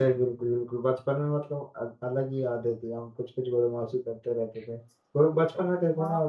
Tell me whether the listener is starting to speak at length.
No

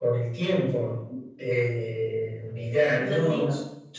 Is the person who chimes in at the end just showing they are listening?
Yes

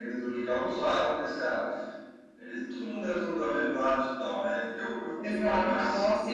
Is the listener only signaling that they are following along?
No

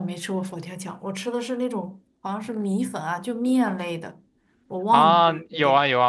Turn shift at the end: Yes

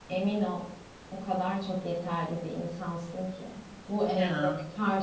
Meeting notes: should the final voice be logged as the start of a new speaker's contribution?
No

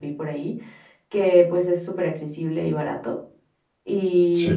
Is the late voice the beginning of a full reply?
No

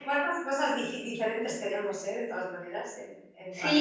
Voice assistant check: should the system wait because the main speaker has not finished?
No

